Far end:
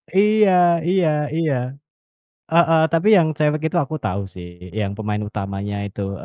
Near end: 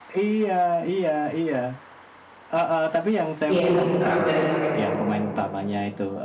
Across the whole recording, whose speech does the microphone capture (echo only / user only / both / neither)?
both